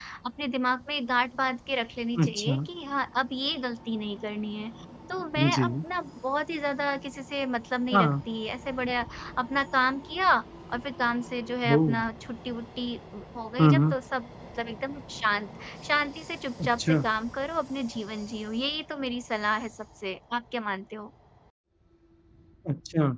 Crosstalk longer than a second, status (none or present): none